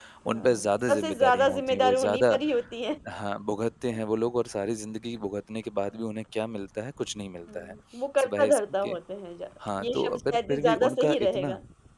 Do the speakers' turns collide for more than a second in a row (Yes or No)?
Yes